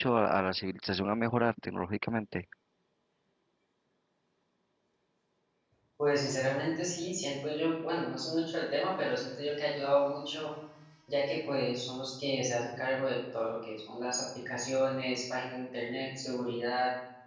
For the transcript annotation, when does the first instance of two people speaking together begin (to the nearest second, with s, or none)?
none